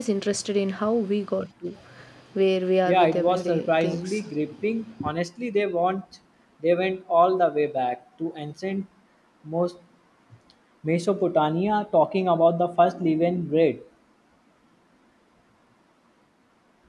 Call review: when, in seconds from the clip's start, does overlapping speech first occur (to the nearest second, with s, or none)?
3 s